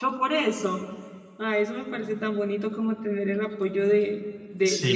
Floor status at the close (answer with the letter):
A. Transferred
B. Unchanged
A